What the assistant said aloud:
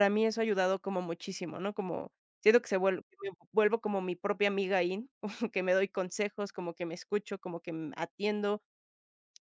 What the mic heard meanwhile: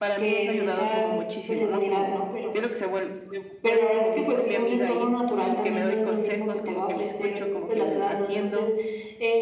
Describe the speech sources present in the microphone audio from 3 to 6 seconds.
both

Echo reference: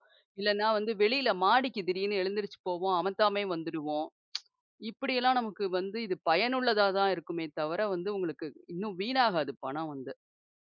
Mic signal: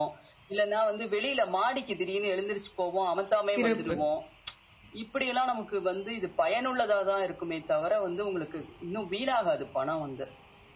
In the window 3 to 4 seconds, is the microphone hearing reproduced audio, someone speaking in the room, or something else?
both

